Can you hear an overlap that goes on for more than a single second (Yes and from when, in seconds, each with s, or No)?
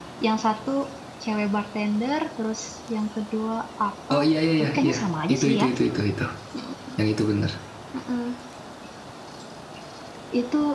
No